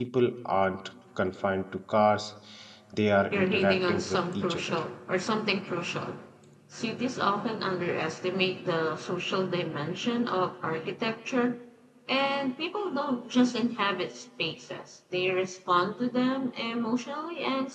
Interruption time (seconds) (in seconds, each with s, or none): 3.3 s